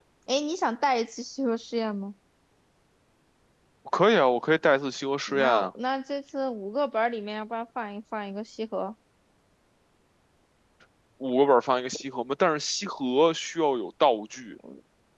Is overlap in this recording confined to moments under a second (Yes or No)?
Yes